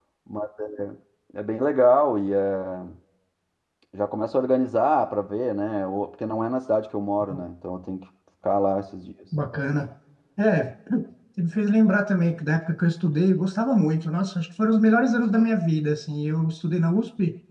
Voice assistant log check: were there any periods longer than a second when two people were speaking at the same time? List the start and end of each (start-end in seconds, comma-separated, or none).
none